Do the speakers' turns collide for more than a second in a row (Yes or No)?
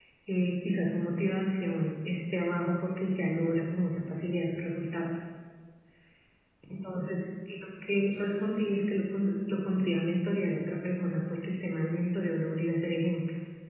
Yes